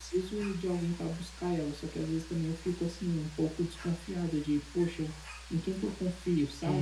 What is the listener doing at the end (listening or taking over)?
taking over